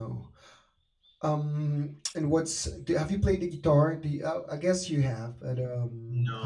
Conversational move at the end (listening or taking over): taking over